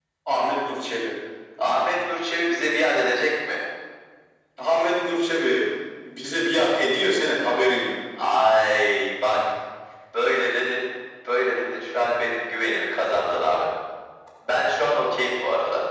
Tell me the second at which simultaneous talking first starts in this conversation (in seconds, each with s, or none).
none